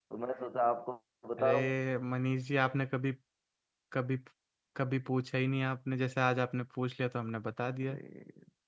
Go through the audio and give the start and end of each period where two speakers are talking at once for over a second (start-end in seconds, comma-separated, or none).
none